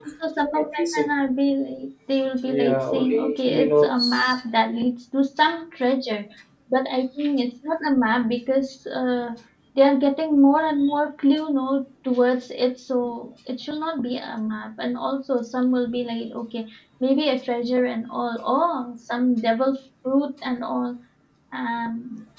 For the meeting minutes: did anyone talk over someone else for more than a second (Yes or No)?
Yes